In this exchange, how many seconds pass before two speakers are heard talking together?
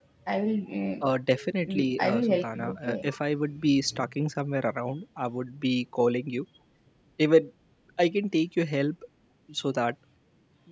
1.6 s

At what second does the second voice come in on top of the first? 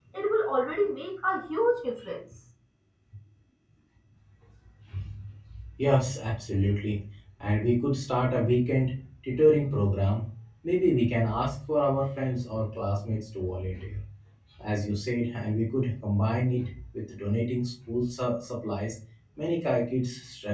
none

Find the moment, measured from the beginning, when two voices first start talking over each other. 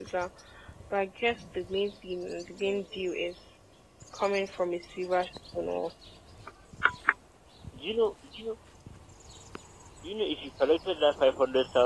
none

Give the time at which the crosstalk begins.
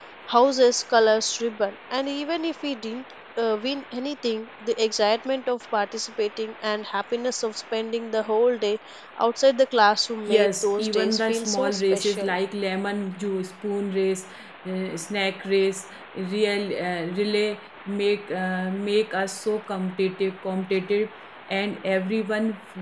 10.3 s

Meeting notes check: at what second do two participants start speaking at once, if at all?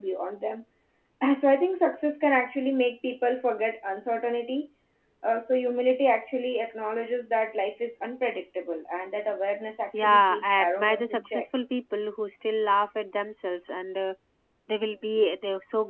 9.9 s

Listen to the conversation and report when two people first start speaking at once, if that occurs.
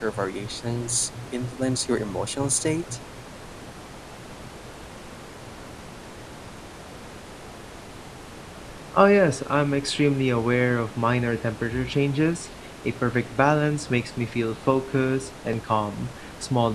none

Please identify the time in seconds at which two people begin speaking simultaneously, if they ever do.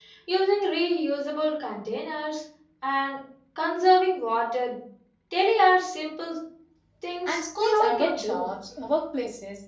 7.3 s

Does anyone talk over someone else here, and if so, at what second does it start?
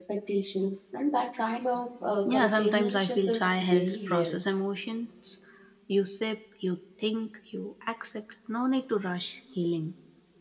2.0 s

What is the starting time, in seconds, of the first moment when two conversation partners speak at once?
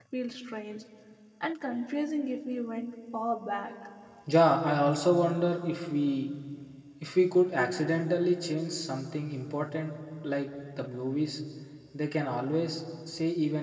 none

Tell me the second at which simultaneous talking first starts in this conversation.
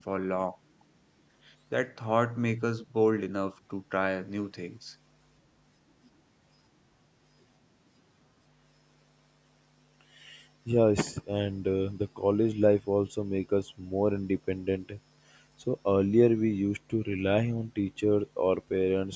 none

